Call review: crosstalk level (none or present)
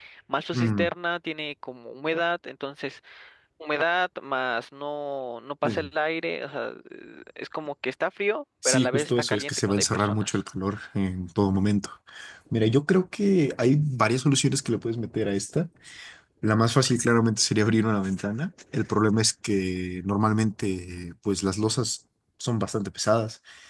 present